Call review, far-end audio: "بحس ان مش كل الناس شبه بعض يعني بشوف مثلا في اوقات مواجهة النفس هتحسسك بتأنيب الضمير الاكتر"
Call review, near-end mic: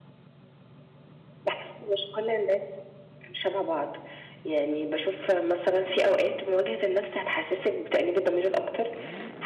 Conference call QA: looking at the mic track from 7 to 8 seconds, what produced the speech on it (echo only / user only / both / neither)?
echo only